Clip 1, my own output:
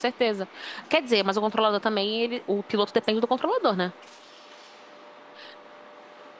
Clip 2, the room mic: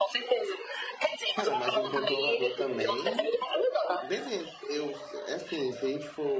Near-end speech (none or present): present